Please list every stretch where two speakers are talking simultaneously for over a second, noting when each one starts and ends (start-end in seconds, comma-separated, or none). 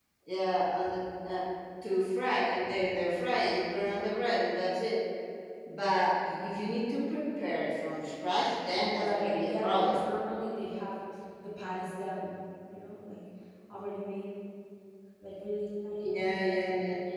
8.8-10.1